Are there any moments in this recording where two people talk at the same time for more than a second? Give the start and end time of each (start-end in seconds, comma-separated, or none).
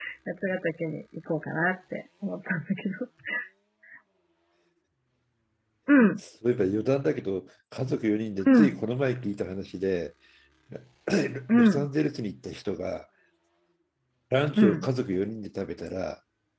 none